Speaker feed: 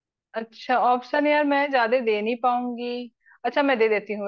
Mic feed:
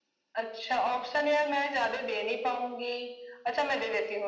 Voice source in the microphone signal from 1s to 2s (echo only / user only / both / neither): echo only